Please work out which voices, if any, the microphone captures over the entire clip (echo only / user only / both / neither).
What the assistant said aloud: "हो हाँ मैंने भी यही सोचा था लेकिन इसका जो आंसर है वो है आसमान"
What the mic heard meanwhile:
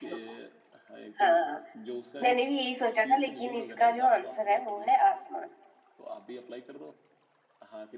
both